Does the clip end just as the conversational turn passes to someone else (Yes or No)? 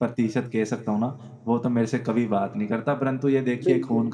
No